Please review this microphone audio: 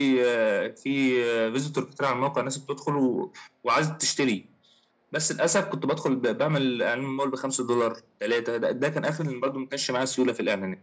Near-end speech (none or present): none